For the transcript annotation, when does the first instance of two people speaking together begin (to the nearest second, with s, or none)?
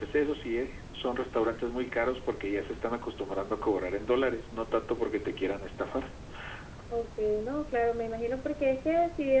none